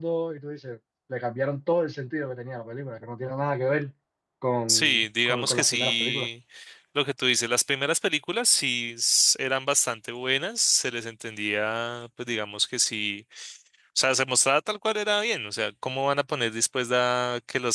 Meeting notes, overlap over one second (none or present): present